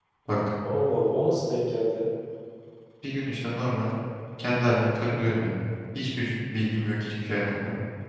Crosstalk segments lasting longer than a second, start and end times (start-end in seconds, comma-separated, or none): none